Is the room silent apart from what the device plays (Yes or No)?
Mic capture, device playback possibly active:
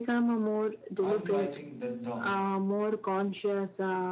No